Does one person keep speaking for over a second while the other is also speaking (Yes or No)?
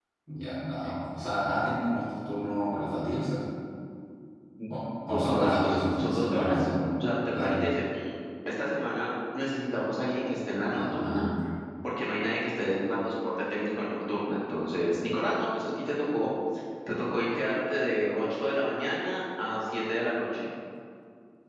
Yes